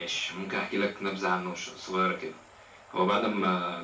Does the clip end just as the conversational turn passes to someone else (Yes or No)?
No